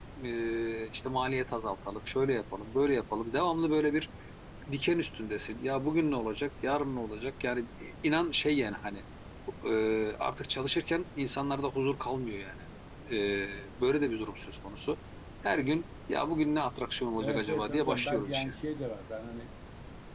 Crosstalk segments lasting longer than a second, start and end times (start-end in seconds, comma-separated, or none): 17.2-18.5